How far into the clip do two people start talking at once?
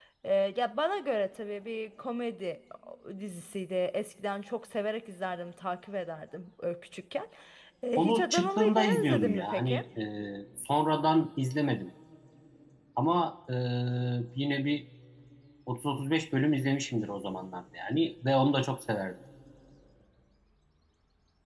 8.0 s

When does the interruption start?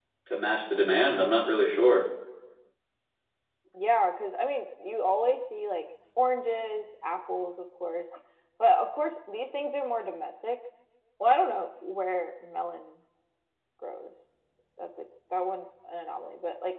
none

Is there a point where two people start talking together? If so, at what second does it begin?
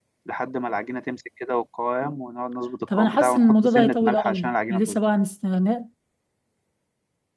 2.9 s

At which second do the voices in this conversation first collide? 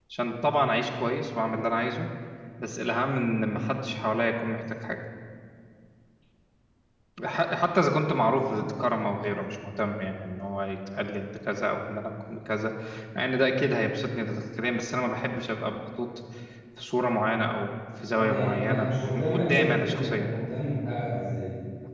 18.1 s

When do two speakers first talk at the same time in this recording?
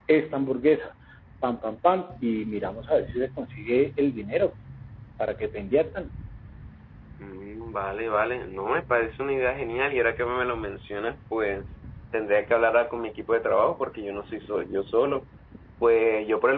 none

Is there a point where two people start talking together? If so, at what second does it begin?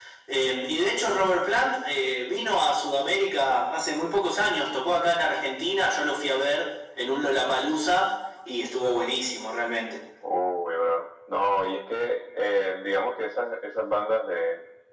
none

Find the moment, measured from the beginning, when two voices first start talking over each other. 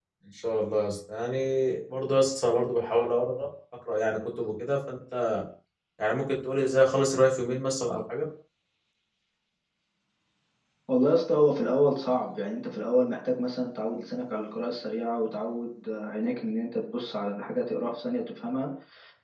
none

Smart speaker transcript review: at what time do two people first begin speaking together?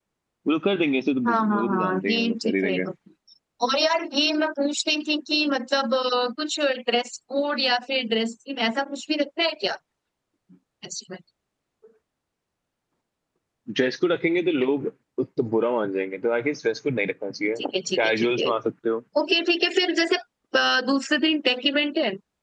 1.3 s

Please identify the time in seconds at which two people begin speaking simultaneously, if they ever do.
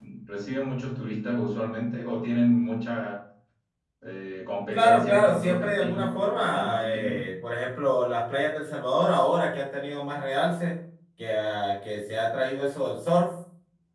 4.7 s

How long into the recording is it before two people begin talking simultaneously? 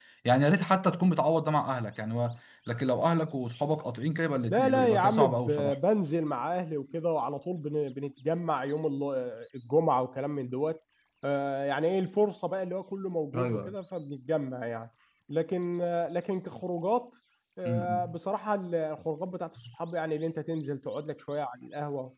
4.5 s

